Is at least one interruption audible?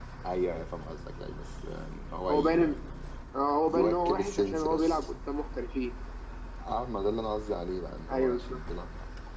Yes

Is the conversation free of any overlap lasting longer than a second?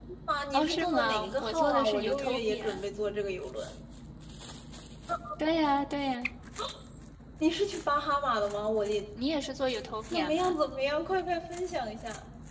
No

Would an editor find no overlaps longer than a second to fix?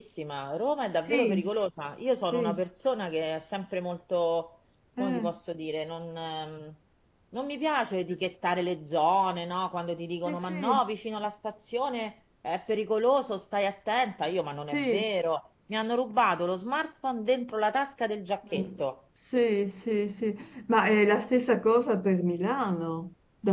Yes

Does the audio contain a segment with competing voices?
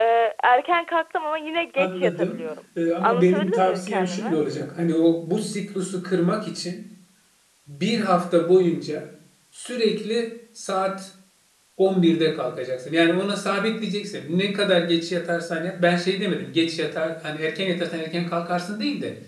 Yes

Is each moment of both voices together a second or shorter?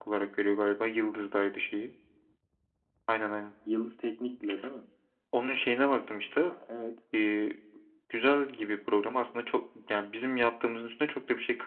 Yes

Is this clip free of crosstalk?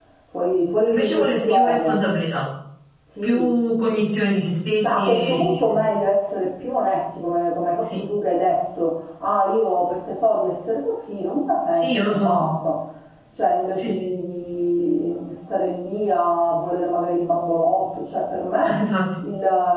No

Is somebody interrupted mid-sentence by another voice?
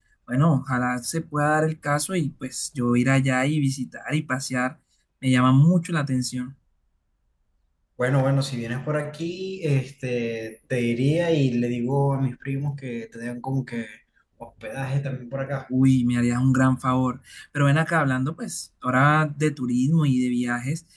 No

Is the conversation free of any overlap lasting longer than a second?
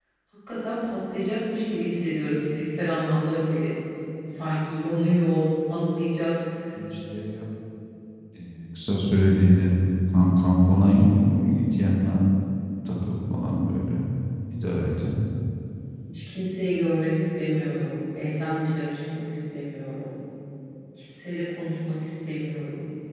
Yes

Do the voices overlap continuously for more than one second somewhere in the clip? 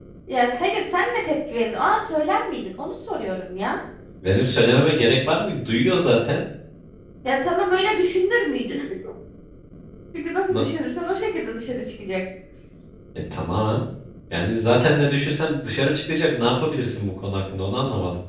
No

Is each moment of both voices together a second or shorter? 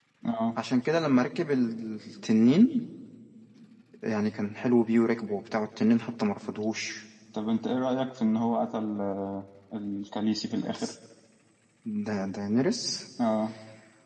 Yes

